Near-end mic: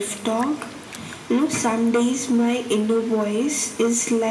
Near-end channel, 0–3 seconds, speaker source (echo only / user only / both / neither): echo only